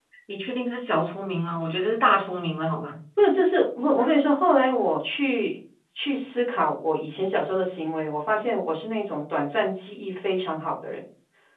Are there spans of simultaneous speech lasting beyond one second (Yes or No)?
No